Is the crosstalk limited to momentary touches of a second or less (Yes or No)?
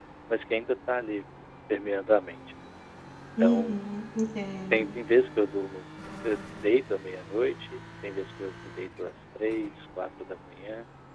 Yes